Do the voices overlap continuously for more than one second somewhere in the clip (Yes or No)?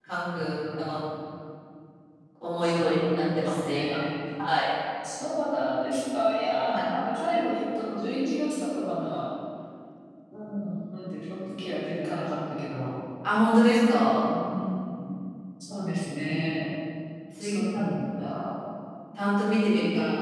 Yes